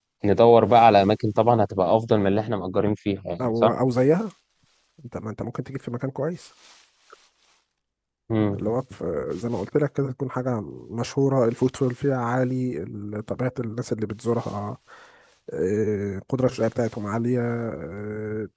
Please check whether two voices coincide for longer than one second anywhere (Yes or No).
No